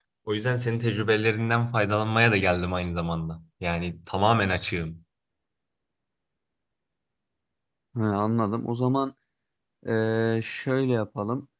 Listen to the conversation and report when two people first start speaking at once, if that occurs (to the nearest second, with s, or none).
none